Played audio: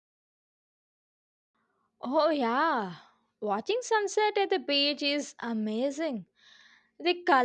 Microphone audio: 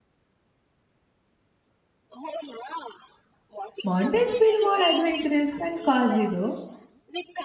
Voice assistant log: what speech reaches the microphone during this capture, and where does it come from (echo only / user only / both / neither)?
both